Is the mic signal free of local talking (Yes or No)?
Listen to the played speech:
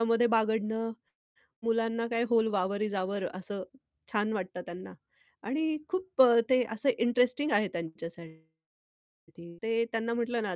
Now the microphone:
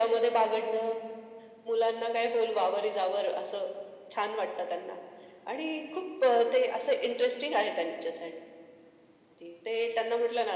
Yes